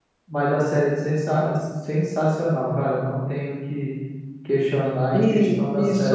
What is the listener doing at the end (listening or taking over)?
taking over